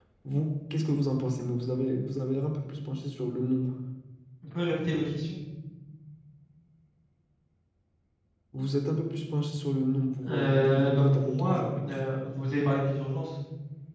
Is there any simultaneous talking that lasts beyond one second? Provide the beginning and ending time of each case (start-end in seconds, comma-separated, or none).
10.3-11.9